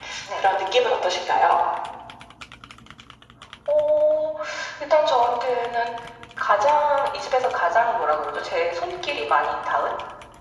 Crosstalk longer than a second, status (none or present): none